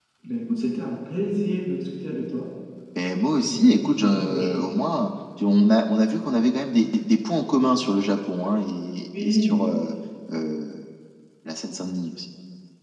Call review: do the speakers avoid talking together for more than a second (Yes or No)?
No